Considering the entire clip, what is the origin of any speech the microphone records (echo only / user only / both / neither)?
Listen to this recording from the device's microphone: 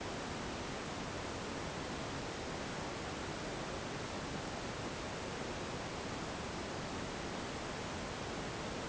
neither